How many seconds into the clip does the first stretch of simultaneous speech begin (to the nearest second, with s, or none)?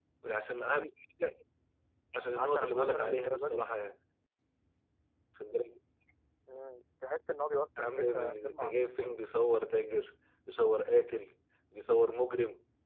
2 s